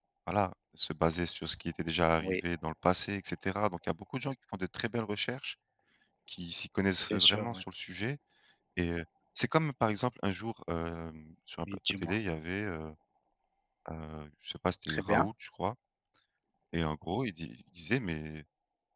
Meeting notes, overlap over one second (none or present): none